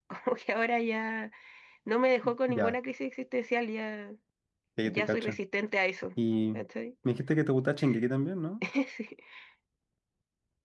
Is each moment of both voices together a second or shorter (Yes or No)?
Yes